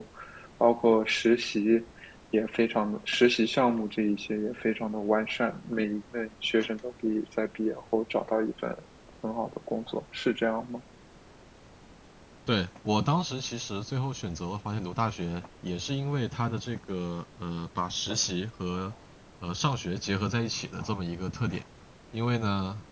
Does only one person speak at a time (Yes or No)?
Yes